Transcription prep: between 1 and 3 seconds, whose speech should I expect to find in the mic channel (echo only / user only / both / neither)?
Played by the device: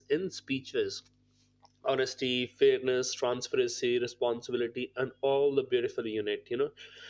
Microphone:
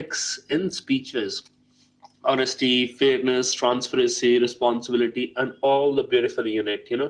echo only